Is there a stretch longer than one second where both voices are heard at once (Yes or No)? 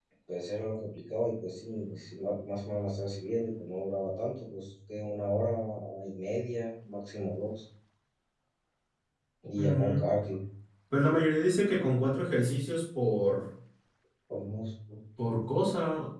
No